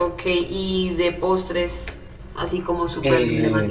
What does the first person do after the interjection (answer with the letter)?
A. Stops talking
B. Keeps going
A